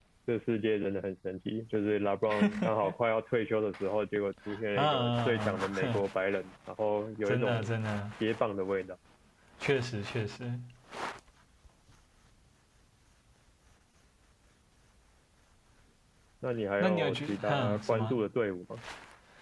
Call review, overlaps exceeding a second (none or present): present